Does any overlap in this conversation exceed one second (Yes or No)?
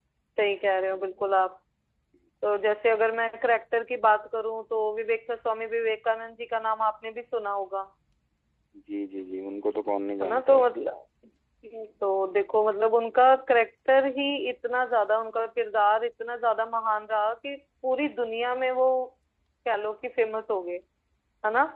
No